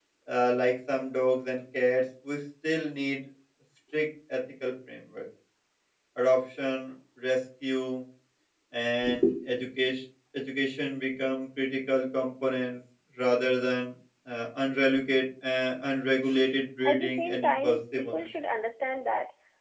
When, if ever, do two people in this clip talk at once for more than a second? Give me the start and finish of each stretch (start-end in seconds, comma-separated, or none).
16.9-18.2